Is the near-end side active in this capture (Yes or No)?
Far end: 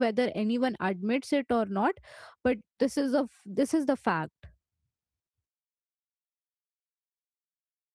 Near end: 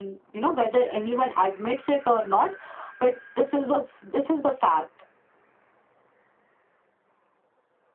No